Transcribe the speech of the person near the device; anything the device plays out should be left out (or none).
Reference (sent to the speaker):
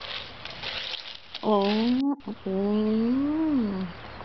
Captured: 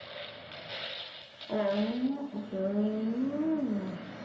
none